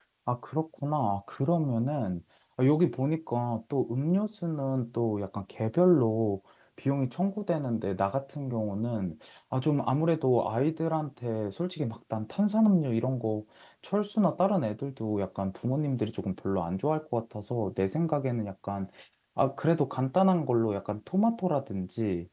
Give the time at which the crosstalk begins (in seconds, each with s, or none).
none